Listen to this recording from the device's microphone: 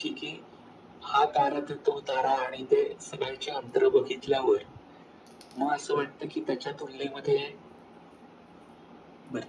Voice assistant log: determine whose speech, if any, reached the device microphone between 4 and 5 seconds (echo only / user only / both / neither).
echo only